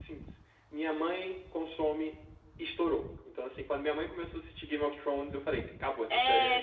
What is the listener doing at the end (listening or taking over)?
taking over